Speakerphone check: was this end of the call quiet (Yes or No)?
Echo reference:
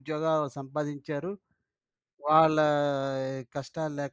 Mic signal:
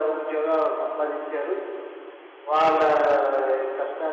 Yes